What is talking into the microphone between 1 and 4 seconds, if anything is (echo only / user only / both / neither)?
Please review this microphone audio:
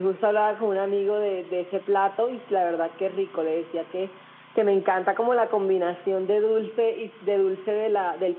echo only